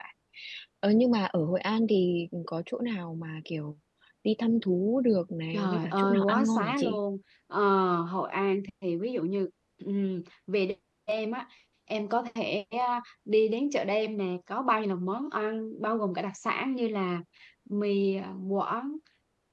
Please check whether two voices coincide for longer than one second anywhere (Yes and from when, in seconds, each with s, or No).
Yes, from 5.5 s